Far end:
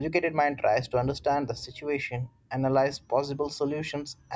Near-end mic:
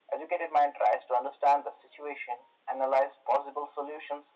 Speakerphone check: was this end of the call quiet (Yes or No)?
Yes